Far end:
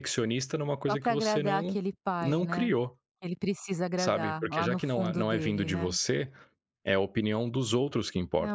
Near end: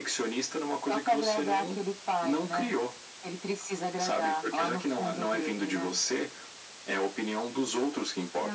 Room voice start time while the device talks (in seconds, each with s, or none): none